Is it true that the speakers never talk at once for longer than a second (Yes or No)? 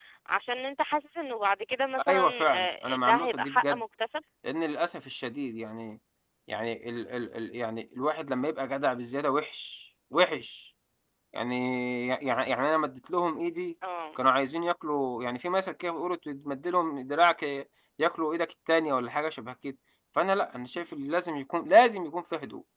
No